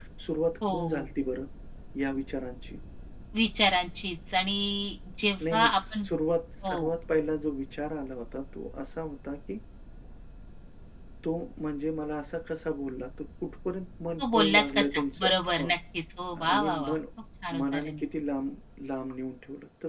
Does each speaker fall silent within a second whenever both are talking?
No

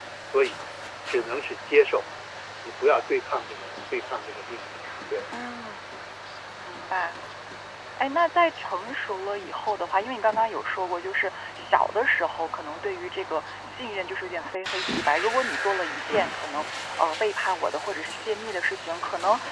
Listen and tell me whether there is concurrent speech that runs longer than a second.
No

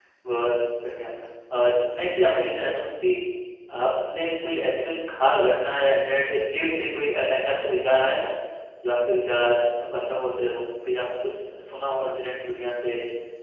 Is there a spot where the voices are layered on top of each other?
No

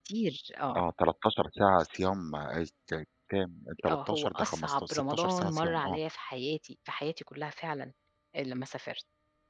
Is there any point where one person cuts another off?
Yes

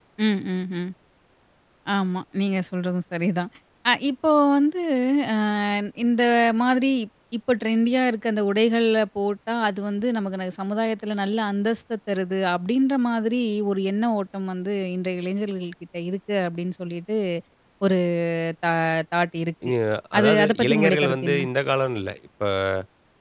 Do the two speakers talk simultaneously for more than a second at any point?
Yes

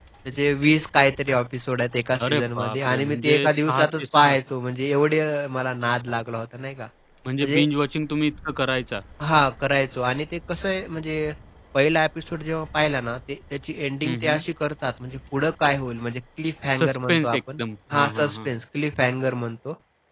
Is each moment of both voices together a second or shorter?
No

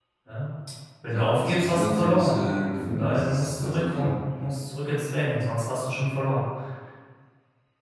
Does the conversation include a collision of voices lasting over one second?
Yes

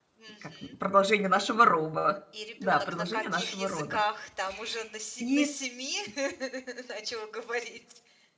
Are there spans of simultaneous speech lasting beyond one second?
Yes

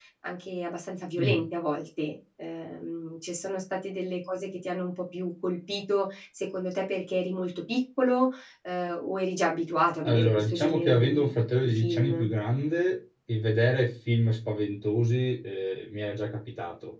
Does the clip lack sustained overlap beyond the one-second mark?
No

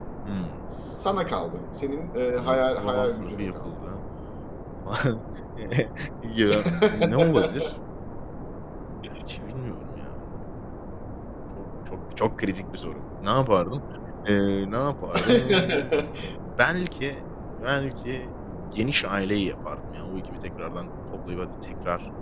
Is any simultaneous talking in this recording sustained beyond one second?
Yes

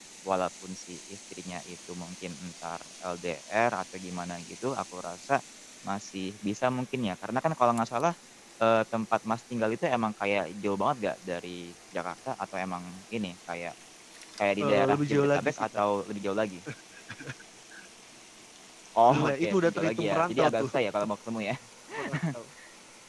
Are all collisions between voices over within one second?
No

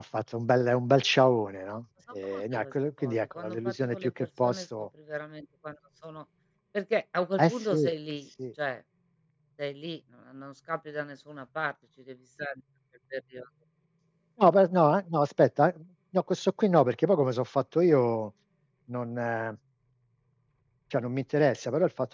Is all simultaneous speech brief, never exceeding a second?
No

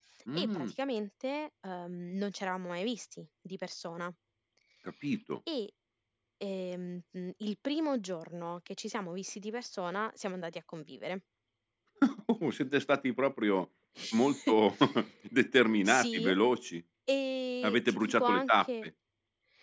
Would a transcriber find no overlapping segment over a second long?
No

